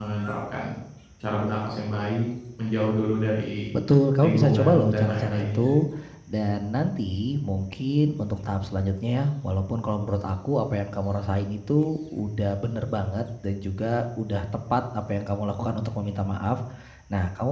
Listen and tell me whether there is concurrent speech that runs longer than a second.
Yes, from 4.2 s

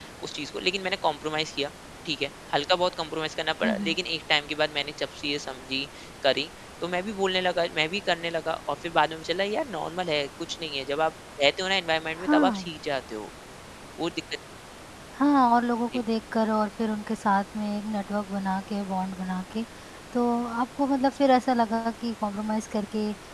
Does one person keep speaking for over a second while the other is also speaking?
No

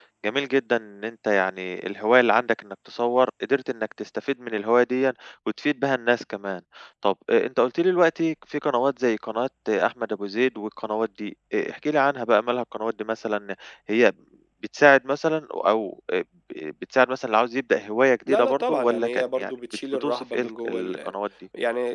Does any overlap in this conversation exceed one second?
Yes, from 18.3 s

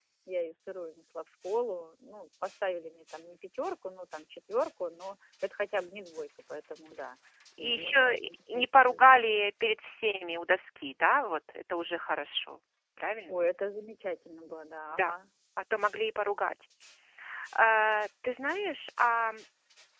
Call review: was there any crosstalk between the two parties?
Yes, from 7.6 s

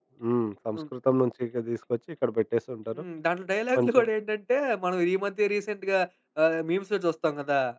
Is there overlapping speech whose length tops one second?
No

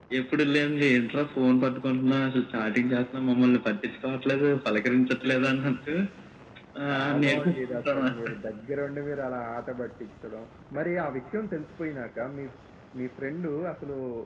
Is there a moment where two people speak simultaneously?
Yes, from 6.9 s

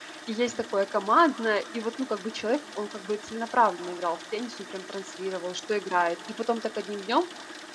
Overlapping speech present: No

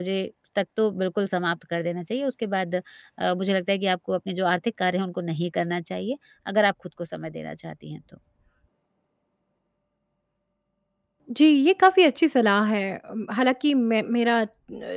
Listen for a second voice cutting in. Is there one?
No

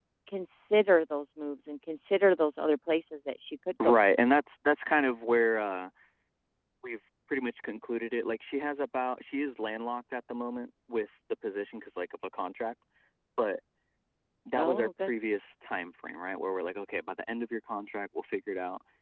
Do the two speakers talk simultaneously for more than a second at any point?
No

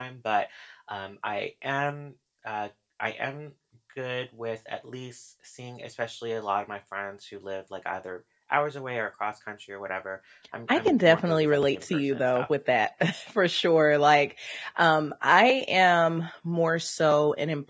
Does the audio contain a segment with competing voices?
Yes, from 10.7 s

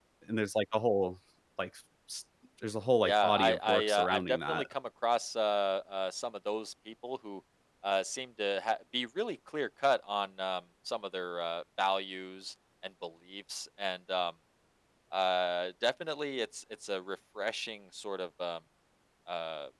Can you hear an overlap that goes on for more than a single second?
Yes, from 3.0 s

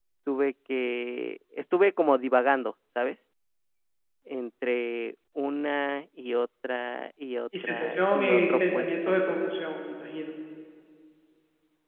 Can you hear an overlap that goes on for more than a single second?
Yes, from 7.5 s

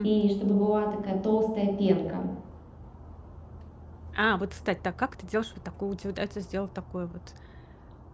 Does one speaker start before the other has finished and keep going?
No

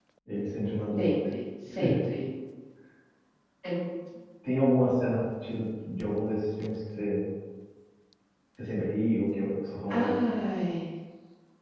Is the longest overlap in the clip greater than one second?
No

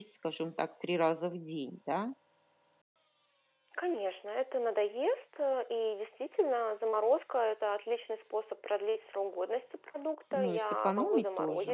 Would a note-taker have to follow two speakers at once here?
Yes, from 10.3 s

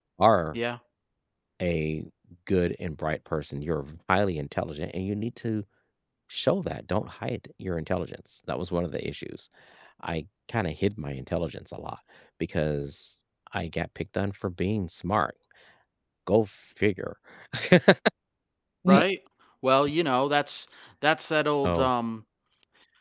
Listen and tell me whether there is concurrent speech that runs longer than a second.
No

